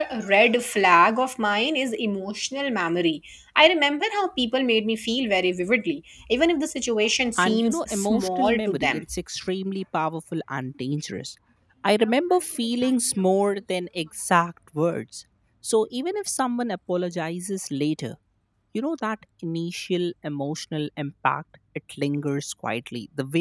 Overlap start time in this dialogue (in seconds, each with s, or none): 7.4 s